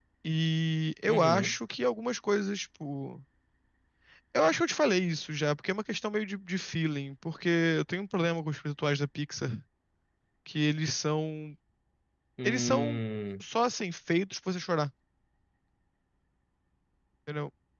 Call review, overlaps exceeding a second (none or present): none